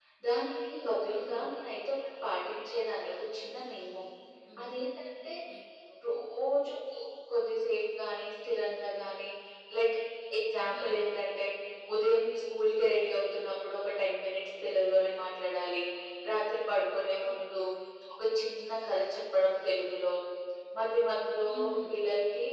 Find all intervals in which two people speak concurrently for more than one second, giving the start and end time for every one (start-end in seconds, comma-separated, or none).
none